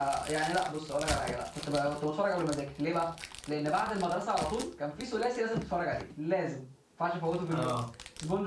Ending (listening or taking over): listening